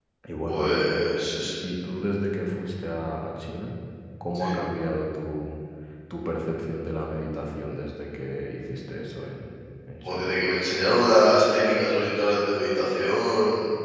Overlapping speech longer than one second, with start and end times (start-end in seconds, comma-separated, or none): none